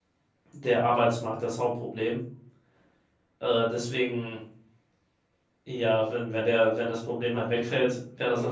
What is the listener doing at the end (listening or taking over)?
taking over